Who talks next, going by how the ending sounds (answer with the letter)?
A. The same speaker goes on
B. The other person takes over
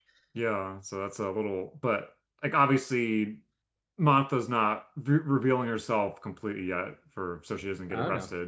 A